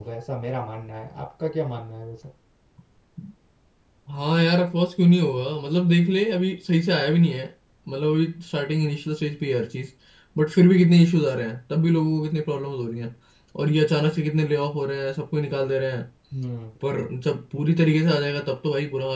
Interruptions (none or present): none